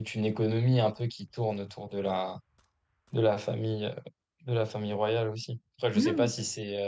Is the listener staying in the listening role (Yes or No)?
Yes